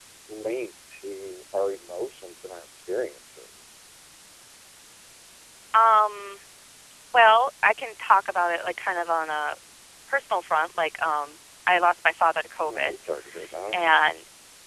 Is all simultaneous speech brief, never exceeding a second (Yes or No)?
Yes